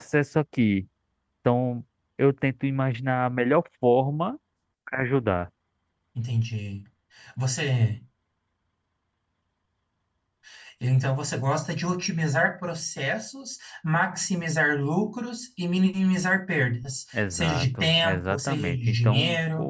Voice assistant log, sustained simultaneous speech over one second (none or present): present